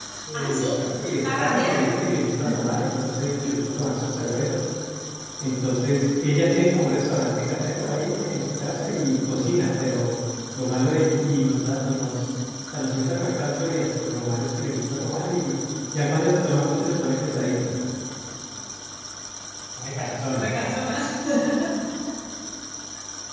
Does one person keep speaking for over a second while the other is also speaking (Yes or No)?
No